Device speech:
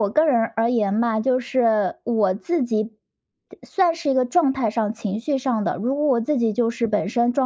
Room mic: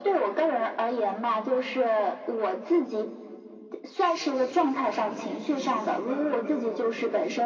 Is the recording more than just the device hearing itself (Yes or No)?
Yes